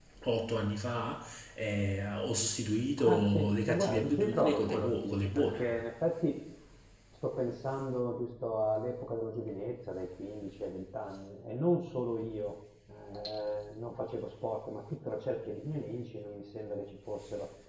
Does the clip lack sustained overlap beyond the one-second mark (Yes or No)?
No